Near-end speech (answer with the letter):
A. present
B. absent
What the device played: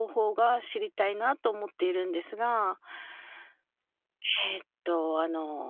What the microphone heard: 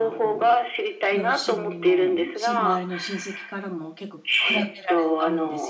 A